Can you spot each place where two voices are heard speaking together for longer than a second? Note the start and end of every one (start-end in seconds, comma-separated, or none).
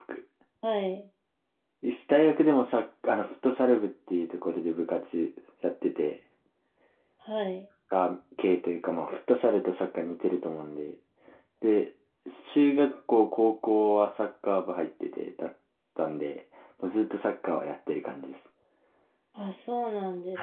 none